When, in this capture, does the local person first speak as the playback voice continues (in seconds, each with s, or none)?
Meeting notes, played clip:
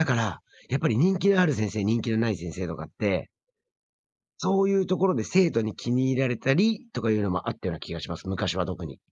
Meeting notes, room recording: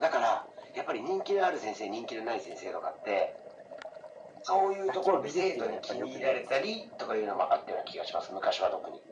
4.8 s